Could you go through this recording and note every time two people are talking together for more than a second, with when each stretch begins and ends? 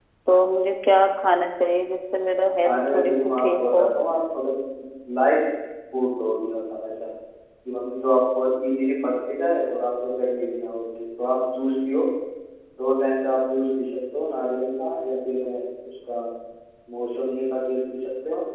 2.6-3.9

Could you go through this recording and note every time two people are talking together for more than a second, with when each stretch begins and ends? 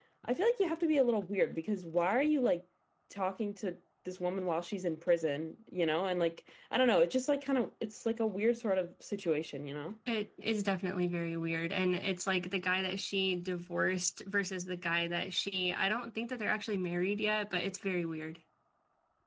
none

